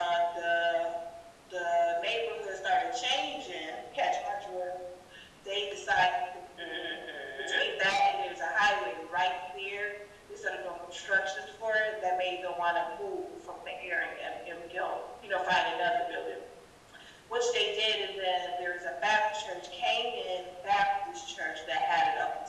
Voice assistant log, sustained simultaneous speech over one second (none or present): none